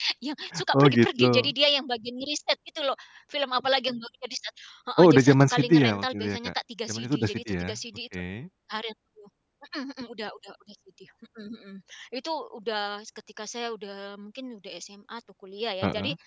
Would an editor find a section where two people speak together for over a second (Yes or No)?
Yes